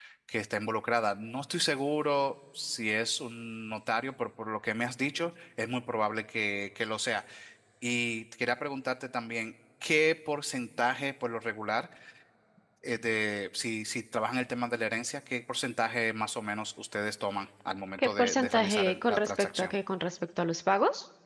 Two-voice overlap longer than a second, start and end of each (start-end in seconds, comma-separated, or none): 18.0-19.7